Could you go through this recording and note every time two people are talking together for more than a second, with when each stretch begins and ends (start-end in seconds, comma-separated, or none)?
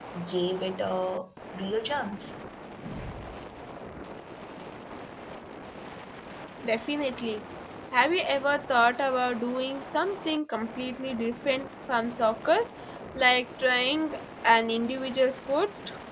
none